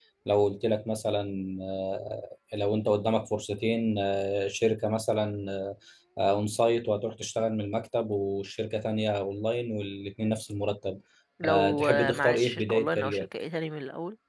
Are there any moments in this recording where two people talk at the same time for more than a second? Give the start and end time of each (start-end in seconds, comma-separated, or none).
11.4-13.3